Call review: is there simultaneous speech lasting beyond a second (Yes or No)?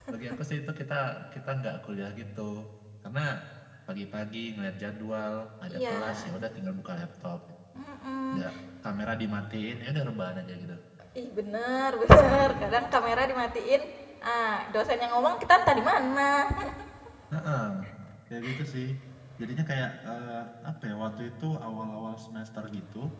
No